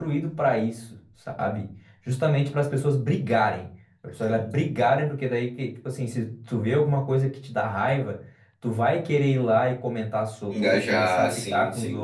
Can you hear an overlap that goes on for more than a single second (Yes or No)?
Yes